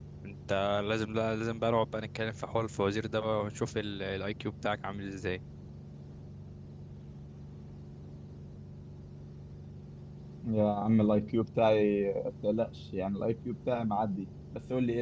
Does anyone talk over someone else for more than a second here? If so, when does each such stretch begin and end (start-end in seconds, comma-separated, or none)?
none